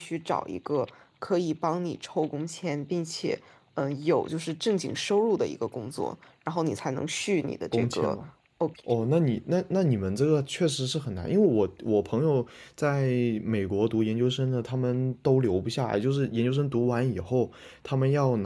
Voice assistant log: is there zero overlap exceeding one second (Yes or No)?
Yes